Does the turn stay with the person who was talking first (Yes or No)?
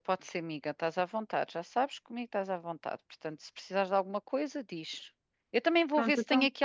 Yes